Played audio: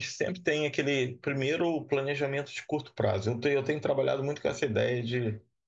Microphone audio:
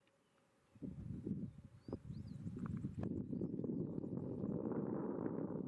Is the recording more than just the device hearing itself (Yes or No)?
No